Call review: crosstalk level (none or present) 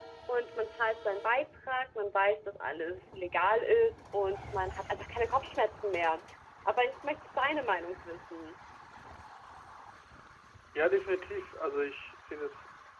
none